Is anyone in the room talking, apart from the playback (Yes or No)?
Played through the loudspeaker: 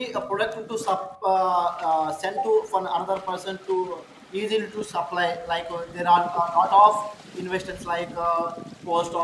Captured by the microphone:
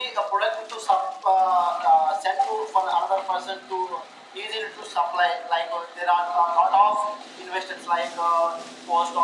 No